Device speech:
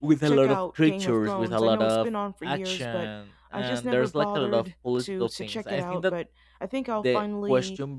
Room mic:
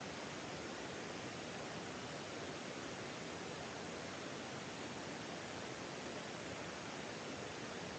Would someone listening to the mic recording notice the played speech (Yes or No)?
No